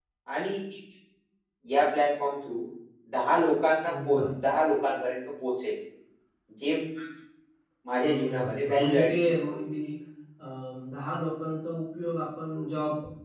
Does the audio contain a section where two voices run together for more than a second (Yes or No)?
Yes